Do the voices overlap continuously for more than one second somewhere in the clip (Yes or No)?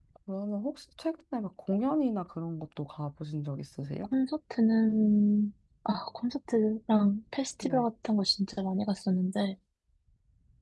No